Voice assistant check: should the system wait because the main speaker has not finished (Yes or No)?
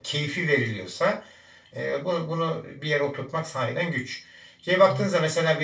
Yes